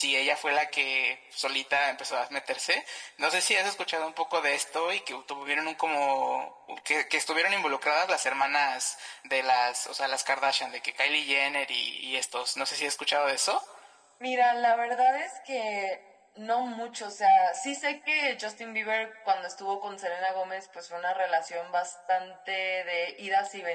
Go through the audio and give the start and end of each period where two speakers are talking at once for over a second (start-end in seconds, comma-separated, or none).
none